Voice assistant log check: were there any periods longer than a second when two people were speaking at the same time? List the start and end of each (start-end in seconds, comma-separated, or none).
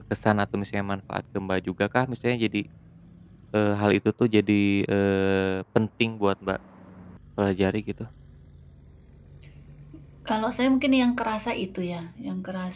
none